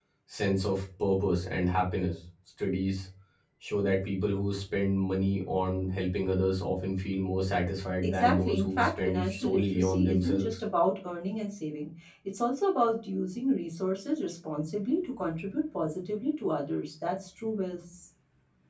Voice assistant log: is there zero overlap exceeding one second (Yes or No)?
No